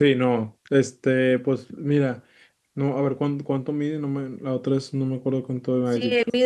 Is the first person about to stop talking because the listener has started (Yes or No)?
Yes